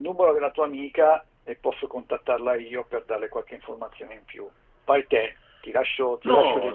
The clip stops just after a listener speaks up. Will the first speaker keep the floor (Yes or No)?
No